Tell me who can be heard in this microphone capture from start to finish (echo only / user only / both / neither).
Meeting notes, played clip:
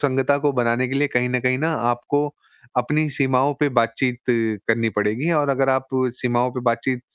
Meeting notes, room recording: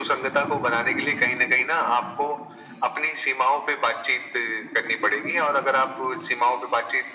echo only